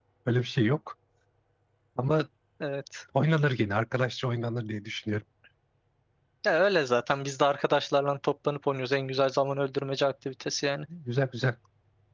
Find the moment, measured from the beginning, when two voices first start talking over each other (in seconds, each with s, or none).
none